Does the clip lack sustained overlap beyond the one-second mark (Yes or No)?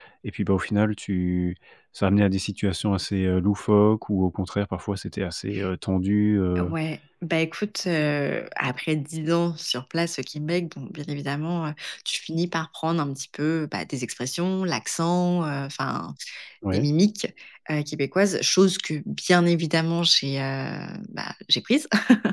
Yes